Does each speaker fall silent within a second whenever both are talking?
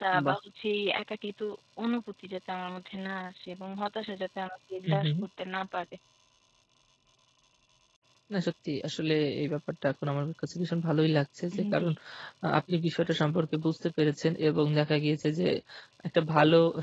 Yes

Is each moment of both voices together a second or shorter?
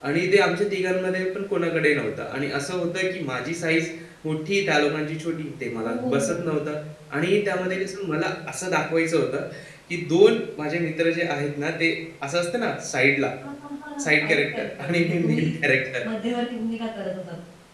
No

